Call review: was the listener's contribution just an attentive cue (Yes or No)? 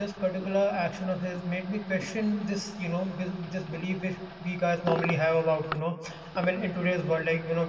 Yes